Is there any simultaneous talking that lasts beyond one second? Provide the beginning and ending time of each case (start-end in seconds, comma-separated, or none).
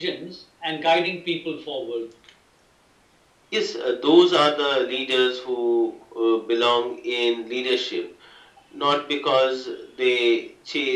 none